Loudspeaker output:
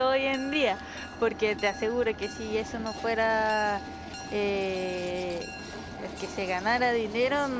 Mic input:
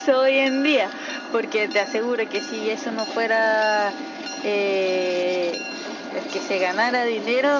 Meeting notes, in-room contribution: none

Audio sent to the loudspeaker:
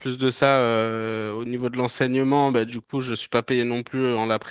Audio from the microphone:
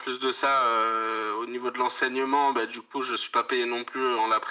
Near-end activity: none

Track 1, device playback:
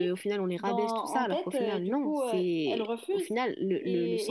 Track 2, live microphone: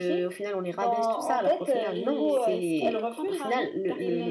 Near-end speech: present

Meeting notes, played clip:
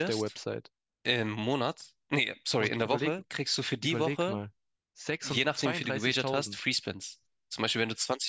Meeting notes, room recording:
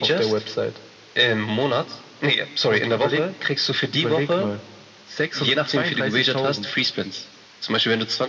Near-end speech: none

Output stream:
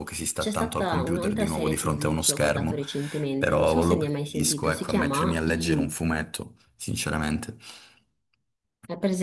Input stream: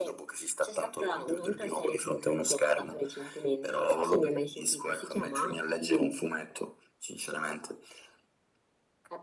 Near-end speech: none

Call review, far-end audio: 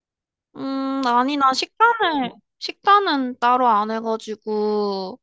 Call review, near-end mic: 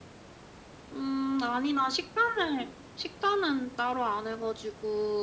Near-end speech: none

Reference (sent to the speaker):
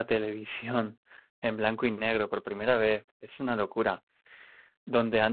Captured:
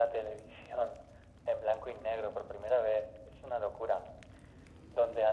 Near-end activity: none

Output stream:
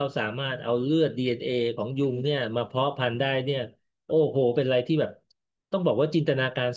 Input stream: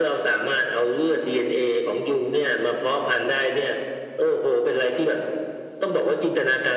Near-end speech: none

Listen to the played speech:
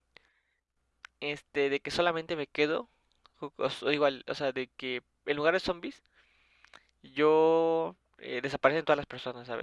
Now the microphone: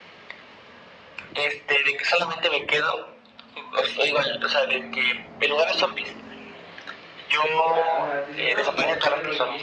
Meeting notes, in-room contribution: present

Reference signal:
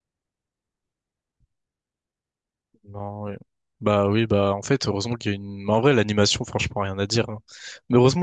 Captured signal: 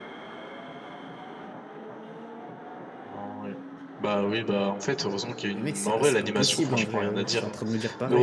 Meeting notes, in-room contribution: present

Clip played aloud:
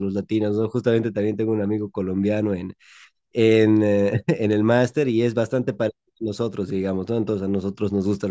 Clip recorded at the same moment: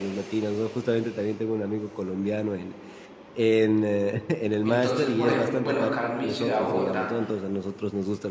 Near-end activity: present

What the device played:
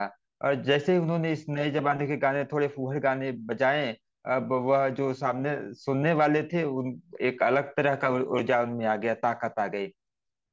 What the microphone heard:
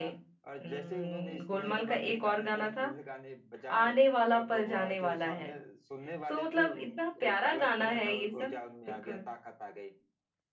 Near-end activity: present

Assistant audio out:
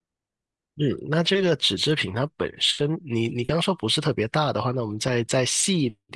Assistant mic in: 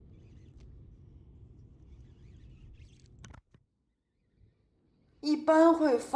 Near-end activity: present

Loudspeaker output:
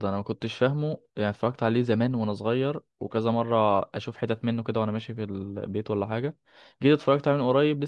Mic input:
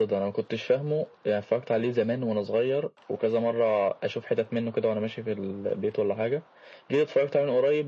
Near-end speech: none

